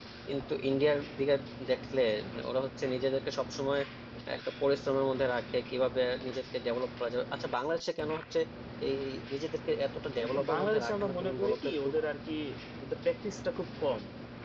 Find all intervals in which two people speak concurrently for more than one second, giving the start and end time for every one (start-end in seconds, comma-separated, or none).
10.2-11.7